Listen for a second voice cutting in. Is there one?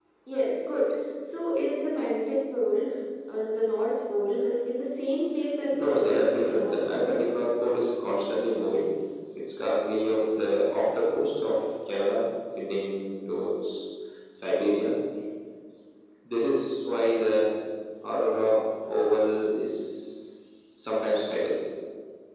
Yes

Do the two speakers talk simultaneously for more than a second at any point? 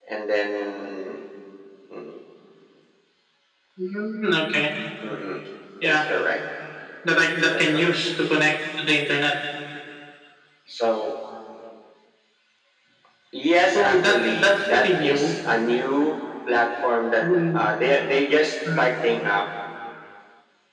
Yes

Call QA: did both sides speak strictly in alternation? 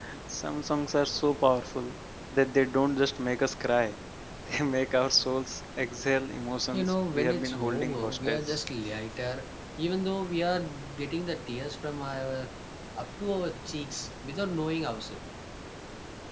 No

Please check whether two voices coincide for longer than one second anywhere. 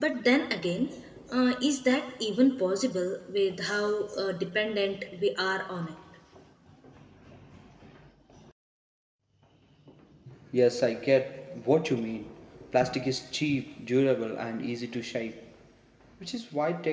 No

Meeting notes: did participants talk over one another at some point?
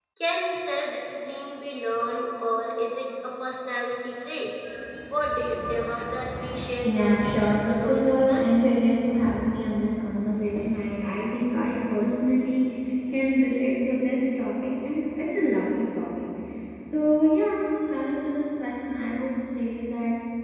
Yes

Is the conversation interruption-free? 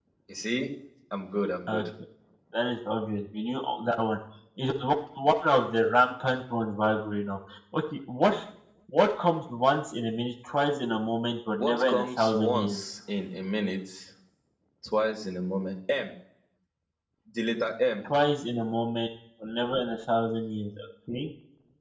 No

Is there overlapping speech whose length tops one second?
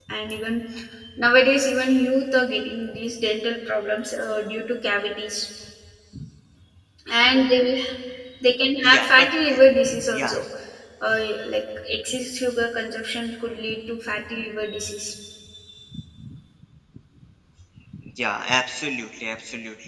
No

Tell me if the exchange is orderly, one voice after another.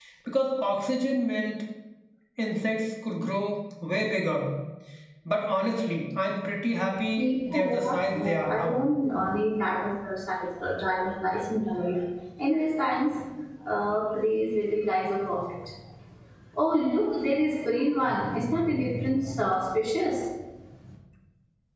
No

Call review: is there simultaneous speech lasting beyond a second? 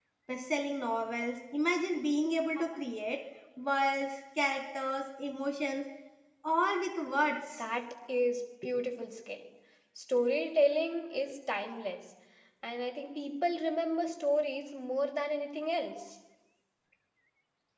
No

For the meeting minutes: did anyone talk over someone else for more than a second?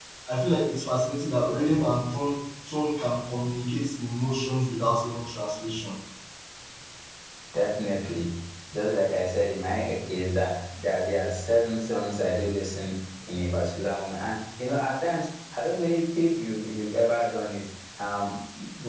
No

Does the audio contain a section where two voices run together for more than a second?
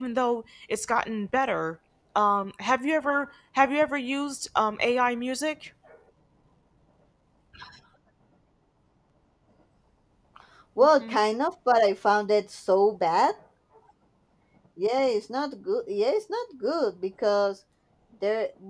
No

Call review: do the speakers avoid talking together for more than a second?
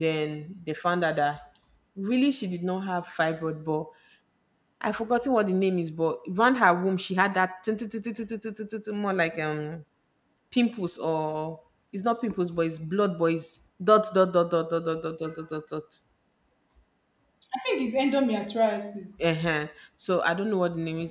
Yes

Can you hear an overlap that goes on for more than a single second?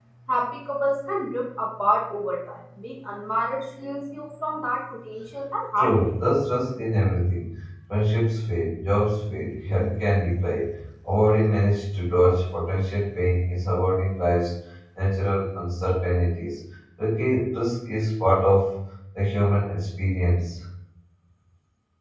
No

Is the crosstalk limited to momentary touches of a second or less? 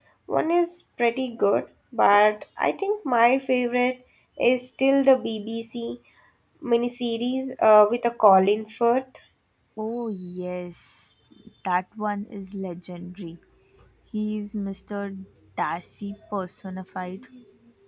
Yes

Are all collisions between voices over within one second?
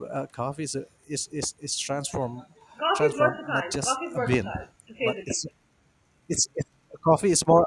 No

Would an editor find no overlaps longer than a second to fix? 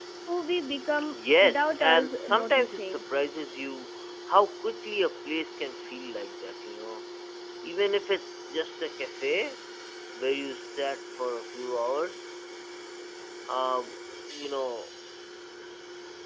No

